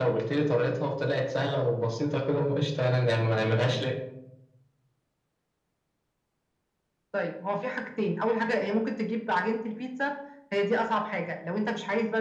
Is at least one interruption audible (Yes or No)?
No